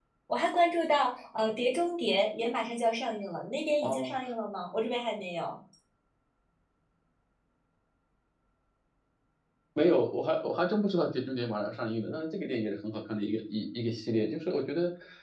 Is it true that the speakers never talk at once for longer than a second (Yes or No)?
Yes